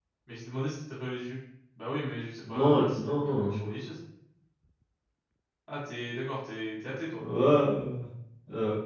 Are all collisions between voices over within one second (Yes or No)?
No